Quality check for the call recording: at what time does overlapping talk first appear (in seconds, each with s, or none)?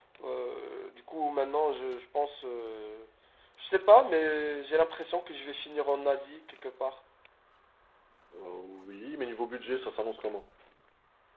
none